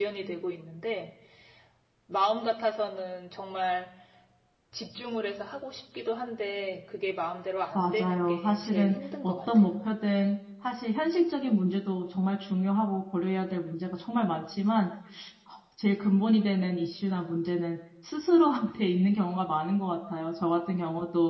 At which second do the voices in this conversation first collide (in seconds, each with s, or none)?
7.7 s